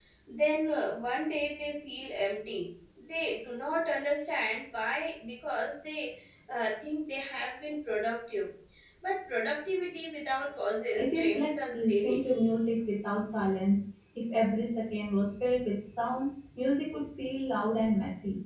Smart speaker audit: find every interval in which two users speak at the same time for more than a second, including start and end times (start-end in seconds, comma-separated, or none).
10.9-12.3